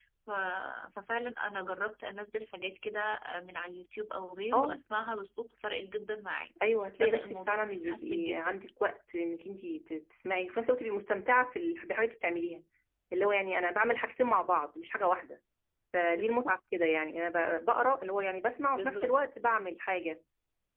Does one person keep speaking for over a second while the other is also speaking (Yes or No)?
Yes